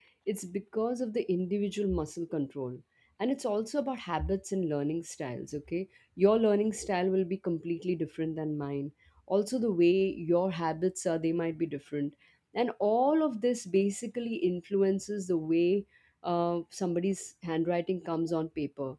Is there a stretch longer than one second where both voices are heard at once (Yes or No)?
No